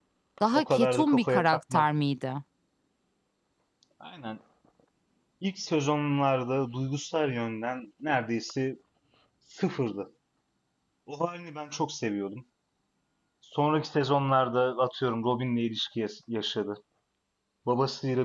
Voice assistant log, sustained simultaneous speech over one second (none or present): present